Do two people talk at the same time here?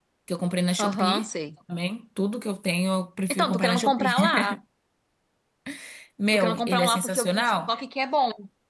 Yes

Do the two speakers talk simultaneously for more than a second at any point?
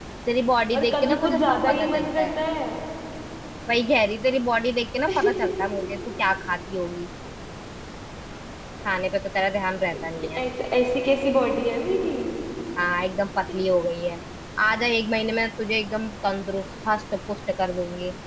Yes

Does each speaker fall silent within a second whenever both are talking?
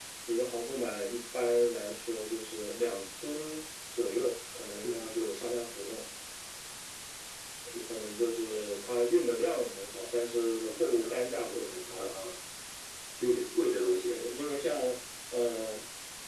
No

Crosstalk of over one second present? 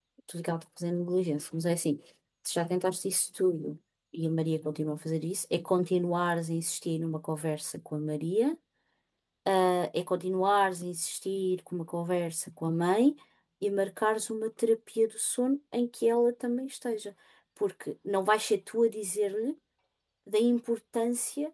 No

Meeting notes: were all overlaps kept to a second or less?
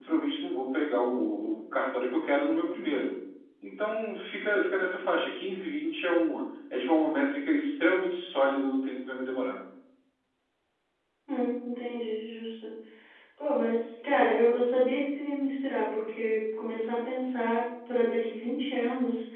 Yes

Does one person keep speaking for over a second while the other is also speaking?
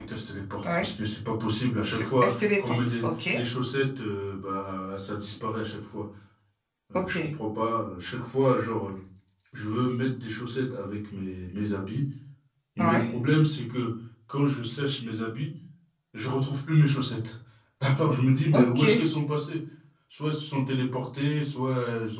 Yes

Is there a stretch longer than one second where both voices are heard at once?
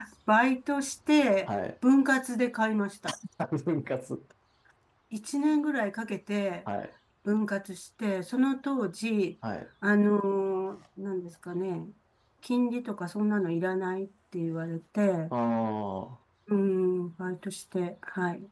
No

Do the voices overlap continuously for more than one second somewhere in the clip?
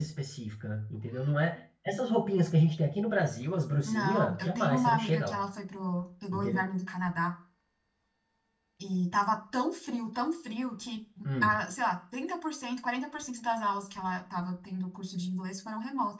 Yes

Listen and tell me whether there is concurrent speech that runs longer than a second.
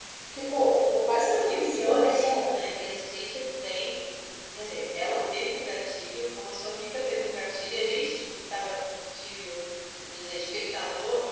Yes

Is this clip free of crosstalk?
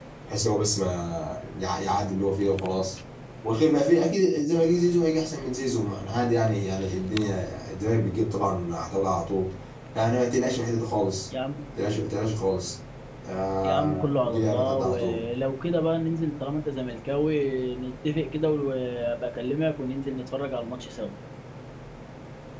No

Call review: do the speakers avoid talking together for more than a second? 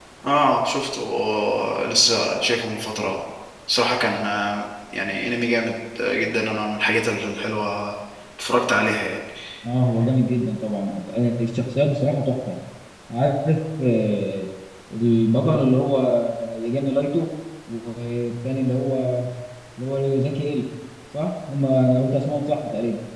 Yes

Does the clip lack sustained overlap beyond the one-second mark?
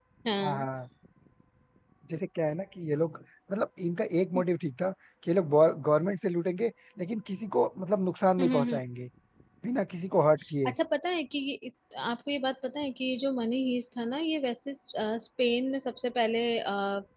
Yes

